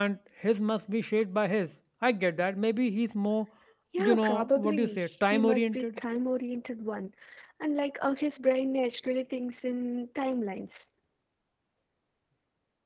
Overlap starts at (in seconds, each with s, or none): 4.0 s